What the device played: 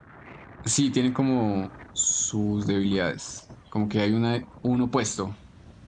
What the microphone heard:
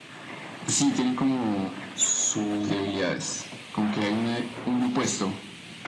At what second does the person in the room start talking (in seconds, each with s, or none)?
none